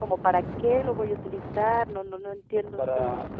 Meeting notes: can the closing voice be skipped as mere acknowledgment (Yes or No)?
Yes